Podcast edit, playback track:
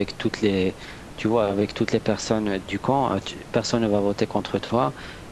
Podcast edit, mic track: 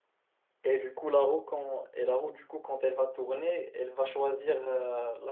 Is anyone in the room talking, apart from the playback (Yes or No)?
Yes